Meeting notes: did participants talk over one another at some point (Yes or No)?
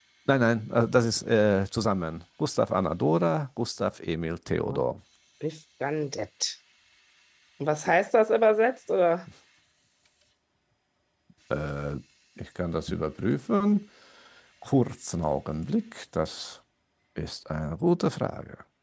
No